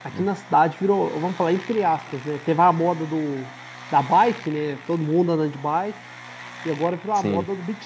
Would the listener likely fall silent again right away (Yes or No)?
Yes